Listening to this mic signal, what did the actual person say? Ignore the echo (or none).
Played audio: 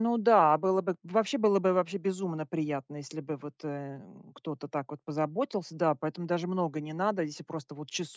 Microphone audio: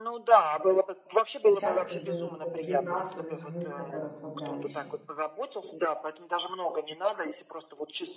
стучат и создают, э, вибрацию, звук такой расслабляющий.